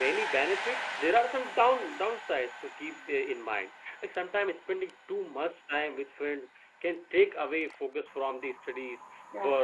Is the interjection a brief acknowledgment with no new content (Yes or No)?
Yes